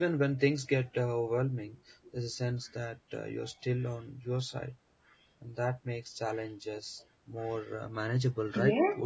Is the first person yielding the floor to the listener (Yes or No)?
Yes